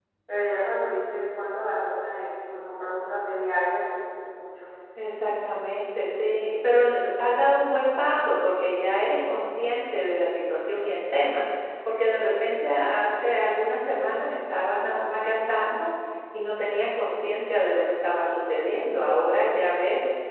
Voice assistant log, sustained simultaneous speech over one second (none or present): none